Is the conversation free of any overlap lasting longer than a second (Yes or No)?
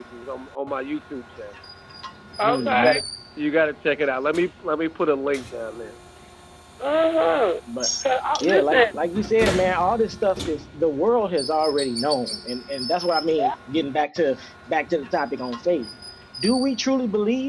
Yes